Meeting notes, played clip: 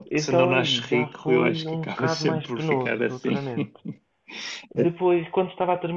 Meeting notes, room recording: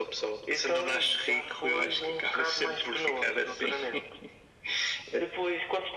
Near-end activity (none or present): none